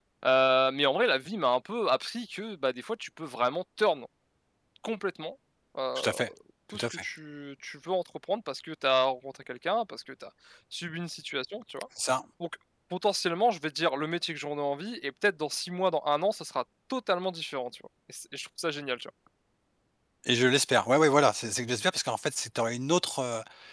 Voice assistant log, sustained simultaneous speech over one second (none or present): none